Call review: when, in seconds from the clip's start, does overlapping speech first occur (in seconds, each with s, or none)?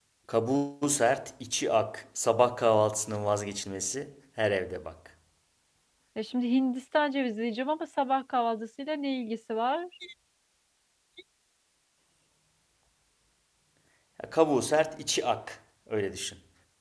none